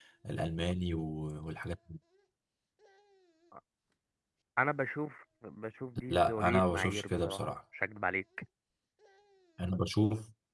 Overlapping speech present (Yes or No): Yes